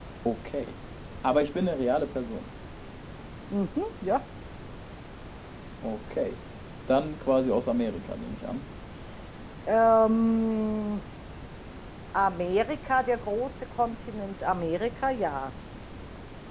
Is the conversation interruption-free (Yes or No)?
Yes